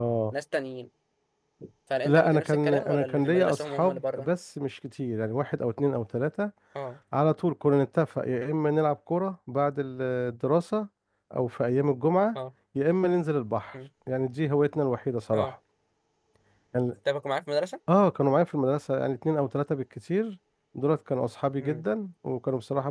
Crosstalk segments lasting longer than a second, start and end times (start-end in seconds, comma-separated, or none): 2.0-4.3